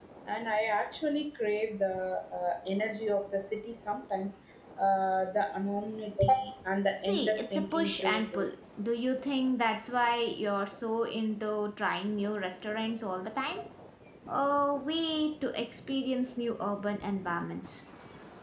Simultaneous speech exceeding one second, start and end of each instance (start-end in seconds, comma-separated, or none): 7.1-8.5